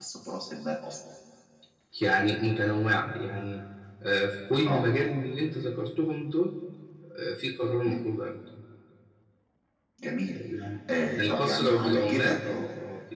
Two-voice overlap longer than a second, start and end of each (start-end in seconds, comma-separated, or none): 11.2-12.4